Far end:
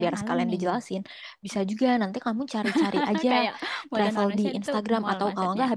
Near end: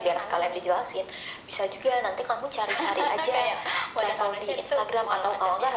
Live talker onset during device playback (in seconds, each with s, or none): none